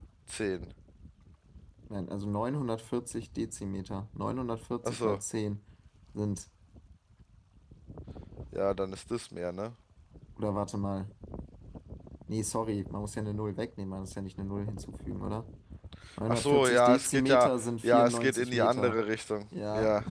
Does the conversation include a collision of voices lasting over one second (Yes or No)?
Yes